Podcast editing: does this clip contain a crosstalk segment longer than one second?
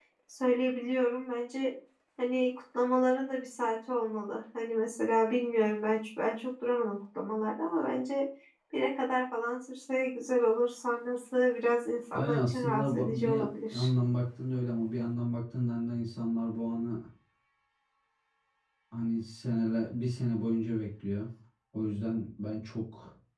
Yes, from 12.1 s

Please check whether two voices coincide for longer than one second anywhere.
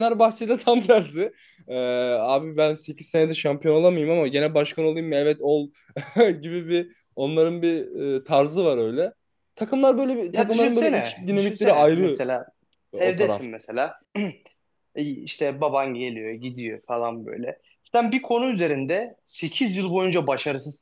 Yes, from 10.3 s

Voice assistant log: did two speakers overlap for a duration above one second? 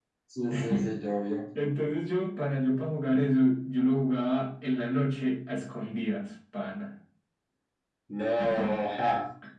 No

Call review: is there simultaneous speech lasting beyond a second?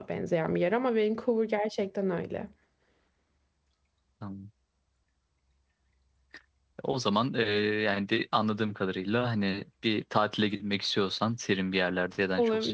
No

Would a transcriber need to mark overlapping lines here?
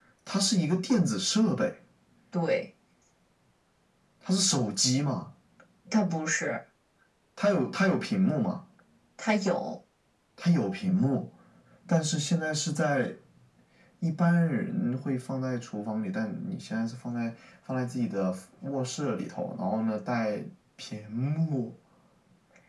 No

